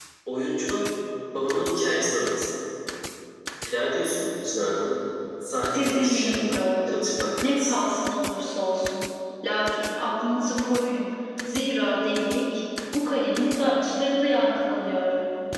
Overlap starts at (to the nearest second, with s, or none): 6 s